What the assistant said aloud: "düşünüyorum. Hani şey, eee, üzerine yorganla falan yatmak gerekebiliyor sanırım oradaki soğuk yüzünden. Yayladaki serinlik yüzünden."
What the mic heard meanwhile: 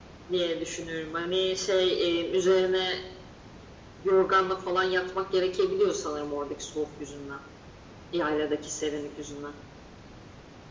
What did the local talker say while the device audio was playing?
none

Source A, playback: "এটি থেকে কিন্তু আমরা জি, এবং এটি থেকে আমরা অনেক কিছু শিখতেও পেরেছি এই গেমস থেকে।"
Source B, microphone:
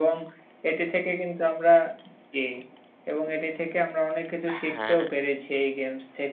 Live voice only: হ্যাঁ।

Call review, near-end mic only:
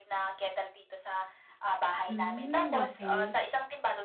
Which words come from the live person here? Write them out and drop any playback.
Hmm, okey.

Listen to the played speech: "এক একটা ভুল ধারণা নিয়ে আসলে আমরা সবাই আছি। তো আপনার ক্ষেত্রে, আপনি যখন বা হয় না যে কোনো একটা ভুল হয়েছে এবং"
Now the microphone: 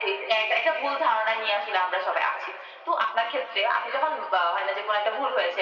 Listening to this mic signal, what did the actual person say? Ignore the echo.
none

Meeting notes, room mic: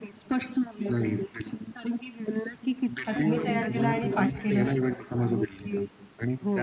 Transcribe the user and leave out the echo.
का तुम्ही तयार केलं आणि पाठ केलं?

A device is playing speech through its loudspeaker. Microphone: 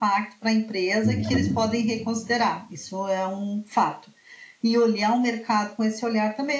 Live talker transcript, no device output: Uhum.

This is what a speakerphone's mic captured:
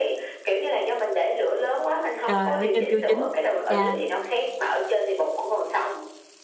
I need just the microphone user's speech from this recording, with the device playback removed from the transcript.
Trời, ở trên chưa chín. Chà!

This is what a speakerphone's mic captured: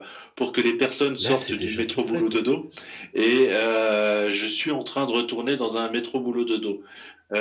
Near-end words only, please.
là, c'est déjà tout prêt, quoi».

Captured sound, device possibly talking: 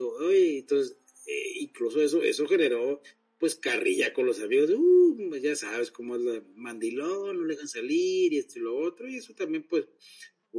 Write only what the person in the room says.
none

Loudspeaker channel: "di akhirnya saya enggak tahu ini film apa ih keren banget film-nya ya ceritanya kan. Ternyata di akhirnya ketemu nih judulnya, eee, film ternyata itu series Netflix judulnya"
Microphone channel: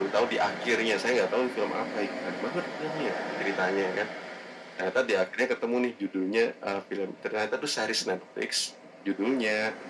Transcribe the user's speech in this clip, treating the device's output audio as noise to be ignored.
none

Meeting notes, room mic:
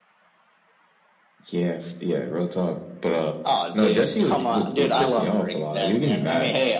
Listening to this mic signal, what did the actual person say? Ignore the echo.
none

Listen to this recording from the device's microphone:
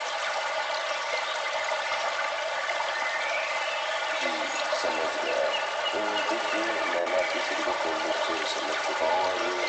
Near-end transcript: none

